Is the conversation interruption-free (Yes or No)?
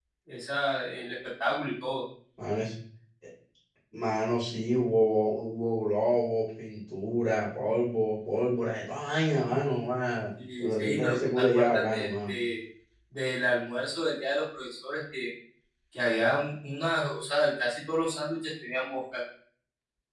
No